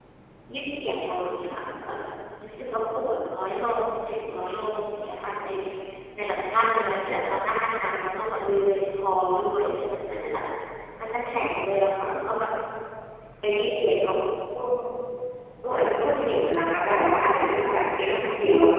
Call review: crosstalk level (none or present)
none